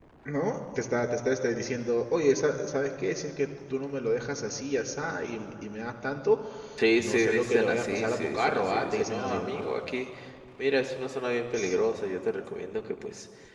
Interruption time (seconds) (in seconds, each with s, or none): 7.0 s